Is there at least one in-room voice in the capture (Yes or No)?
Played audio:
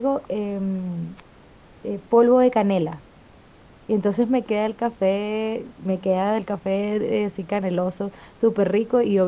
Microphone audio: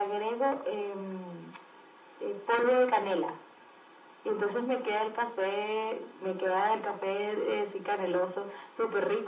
No